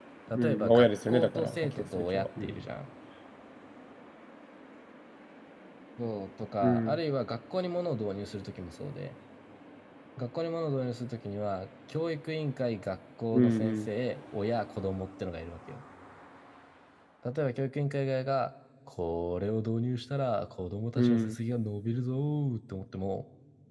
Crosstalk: present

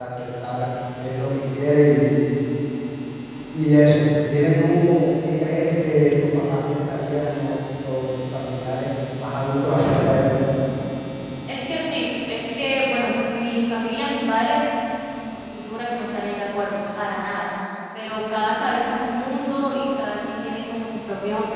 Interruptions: none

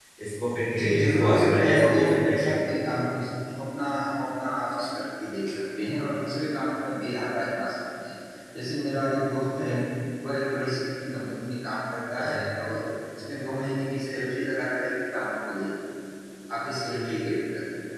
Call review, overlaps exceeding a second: present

